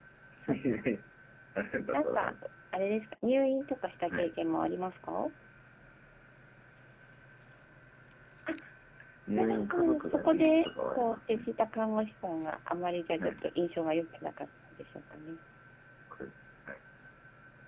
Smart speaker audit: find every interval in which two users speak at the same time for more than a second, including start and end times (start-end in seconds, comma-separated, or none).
9.4-11.5